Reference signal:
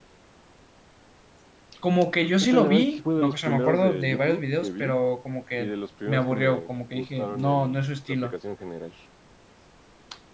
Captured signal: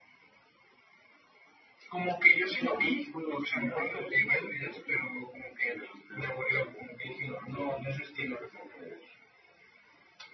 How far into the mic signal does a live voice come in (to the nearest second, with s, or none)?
none